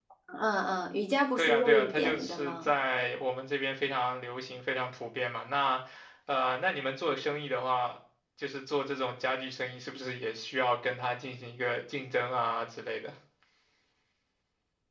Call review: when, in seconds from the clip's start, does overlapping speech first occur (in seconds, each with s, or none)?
1.4 s